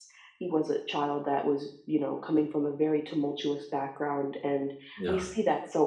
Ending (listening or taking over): listening